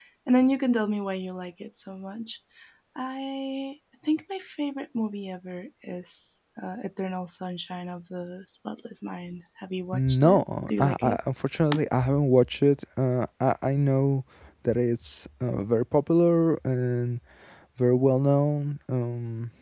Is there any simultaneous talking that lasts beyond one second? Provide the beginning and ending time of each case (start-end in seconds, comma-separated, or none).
9.9-11.2